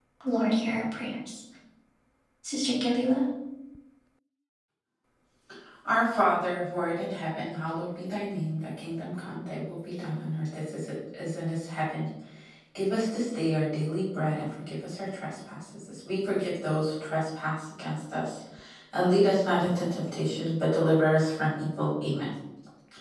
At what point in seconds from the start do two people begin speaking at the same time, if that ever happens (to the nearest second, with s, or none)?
none